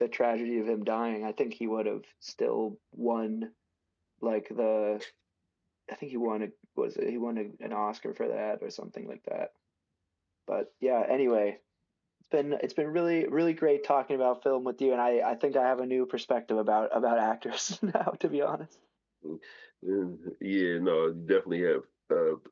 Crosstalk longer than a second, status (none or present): none